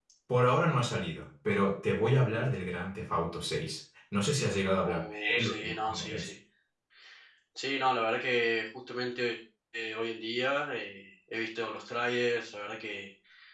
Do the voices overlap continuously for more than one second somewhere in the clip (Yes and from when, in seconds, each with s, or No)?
Yes, from 4.8 s